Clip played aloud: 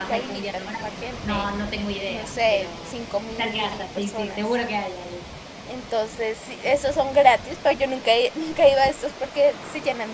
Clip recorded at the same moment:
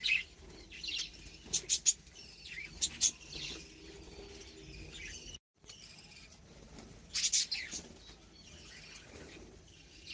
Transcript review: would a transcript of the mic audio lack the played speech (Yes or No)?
Yes